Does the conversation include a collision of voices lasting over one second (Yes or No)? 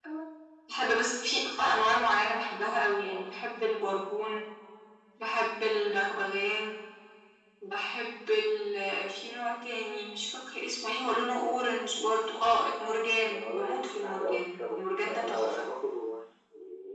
Yes